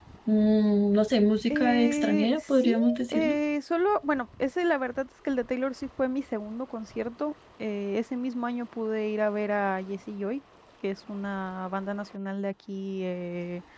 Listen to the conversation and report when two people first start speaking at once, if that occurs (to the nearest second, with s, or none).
1 s